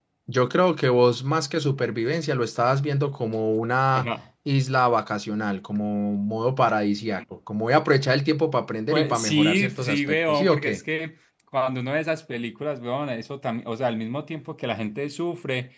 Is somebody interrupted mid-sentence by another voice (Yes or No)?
Yes